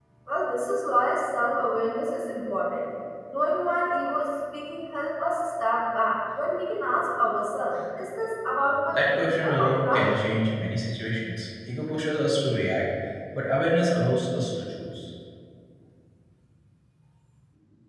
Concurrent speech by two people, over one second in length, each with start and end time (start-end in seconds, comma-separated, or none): 8.9-10.1